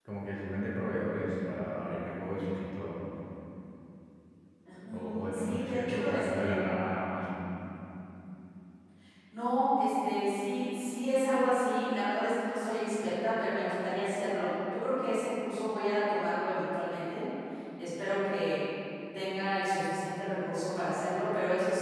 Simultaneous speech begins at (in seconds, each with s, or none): 4.9 s